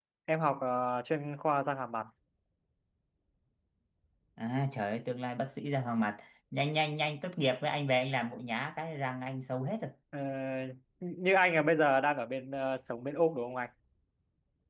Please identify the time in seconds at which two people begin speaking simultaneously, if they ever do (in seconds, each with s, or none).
none